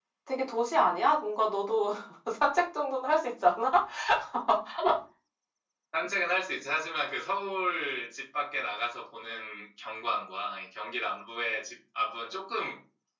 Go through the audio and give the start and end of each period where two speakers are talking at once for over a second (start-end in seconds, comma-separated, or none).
none